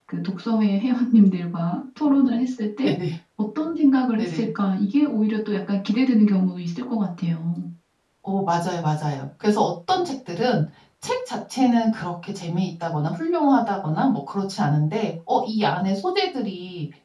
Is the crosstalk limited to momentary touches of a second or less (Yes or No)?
Yes